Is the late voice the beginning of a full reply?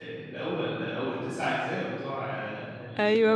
Yes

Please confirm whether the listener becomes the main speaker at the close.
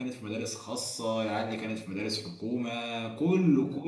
No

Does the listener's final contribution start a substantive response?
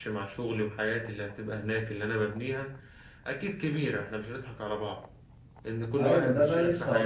Yes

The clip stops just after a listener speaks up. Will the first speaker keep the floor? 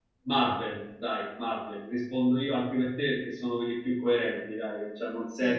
Yes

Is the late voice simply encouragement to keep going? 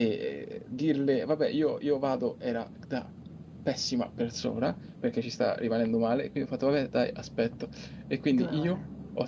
Yes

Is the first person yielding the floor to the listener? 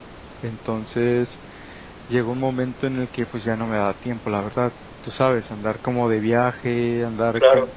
No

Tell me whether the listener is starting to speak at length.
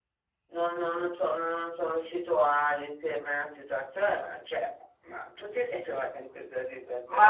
Yes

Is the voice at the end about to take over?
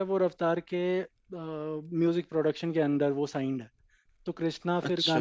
No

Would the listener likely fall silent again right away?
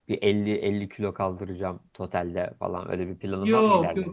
No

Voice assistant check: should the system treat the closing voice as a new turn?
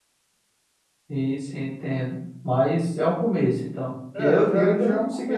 Yes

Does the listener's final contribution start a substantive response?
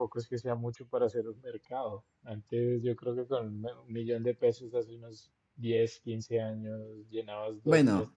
No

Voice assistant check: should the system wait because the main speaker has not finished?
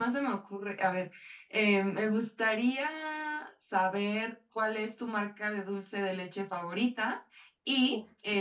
Yes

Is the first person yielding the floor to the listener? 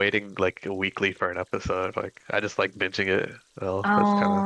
Yes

